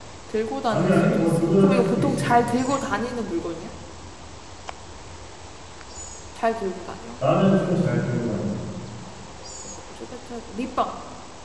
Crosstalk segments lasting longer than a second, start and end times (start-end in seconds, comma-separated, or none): 0.7-2.3